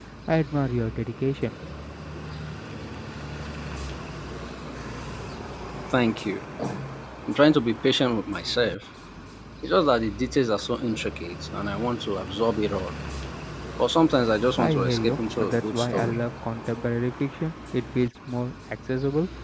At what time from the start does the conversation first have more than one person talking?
14.6 s

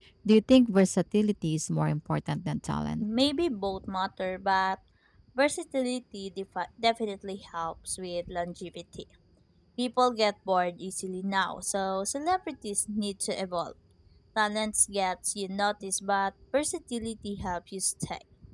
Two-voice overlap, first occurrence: none

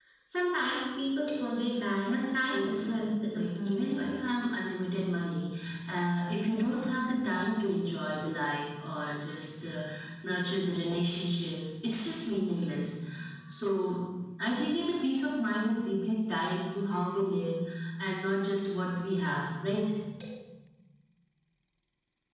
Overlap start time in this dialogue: 2.1 s

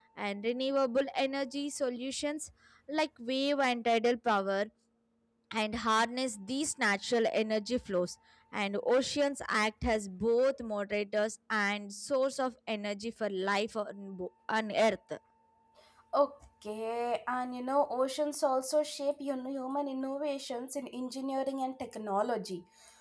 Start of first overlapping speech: none

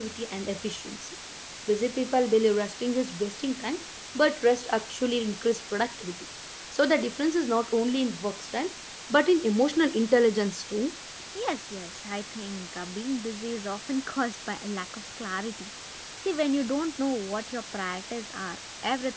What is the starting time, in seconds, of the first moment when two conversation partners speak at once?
none

